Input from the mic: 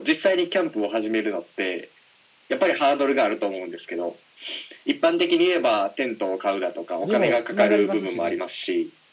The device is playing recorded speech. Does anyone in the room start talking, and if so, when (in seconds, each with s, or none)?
7.0 s